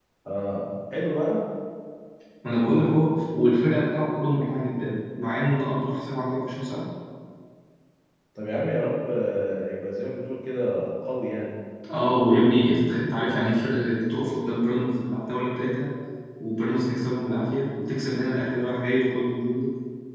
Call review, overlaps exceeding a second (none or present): none